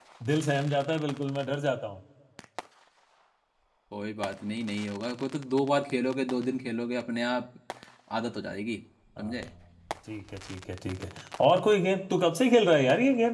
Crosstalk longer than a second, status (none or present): none